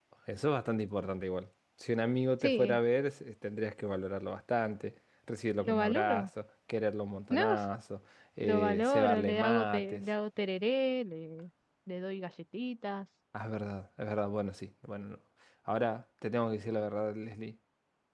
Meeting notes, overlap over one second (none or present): present